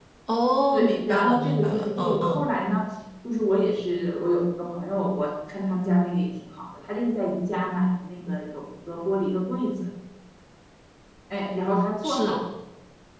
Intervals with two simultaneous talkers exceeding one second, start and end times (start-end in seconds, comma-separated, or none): 0.7-2.4